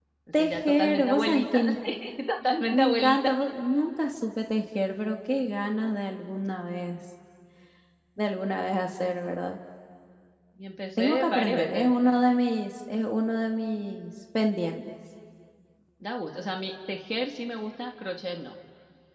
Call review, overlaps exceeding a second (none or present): present